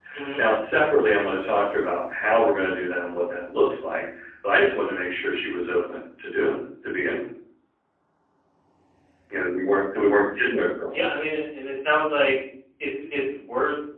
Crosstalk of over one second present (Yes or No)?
No